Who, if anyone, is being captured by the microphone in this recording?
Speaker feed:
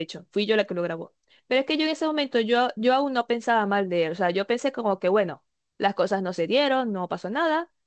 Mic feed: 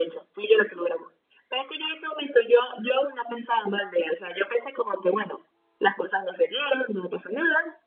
echo only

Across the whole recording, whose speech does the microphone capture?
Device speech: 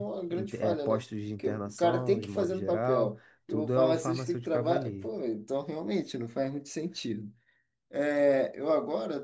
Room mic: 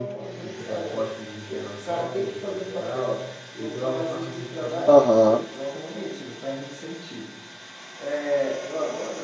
both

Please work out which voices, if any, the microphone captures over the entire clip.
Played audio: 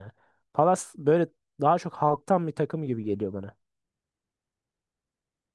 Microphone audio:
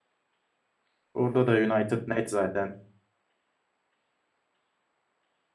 user only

